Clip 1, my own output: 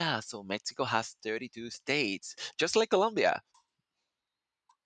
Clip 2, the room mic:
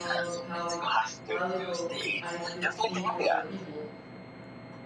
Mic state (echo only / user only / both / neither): both